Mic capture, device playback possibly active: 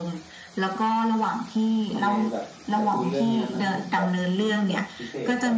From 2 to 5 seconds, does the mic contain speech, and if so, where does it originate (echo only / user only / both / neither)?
both